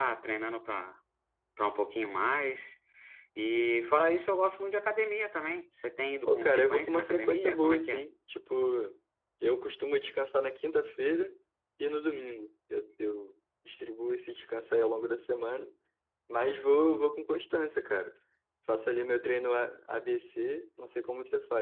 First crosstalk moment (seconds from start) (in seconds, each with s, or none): 6.2 s